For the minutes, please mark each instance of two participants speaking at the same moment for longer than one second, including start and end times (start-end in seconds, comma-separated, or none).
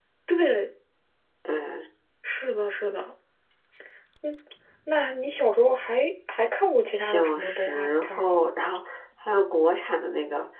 6.9-8.5